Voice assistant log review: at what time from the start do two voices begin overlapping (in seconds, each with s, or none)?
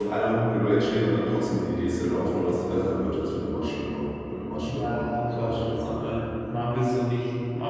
4.7 s